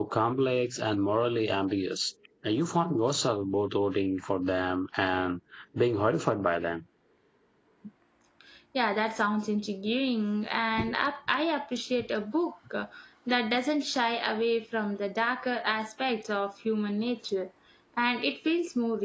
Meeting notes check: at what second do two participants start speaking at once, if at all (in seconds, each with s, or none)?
none